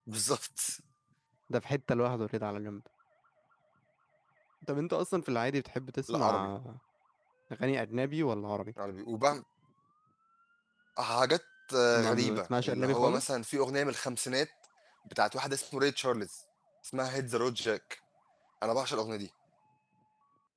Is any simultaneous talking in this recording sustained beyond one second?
Yes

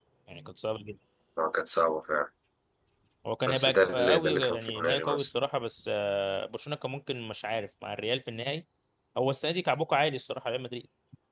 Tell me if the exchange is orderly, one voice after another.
No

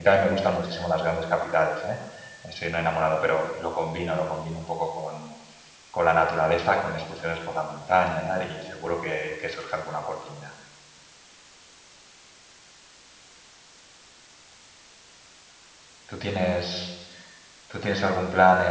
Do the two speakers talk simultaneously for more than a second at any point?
No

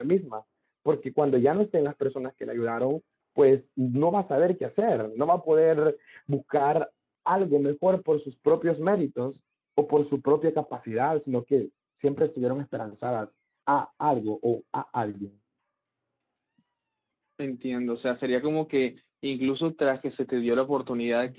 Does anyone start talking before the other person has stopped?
No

